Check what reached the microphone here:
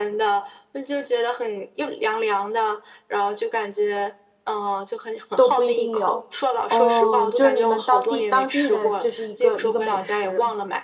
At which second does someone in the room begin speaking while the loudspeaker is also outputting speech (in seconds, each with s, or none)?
5.4 s